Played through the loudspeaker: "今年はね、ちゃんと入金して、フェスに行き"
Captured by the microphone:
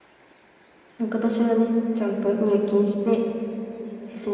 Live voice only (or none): none